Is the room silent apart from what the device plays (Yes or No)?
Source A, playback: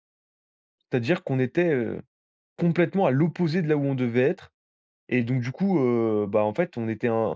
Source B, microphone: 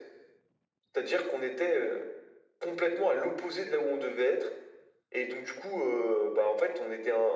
Yes